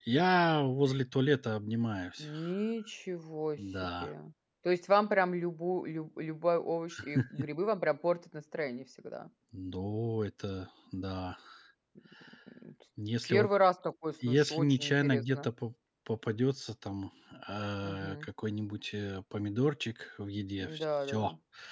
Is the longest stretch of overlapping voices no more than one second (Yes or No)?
No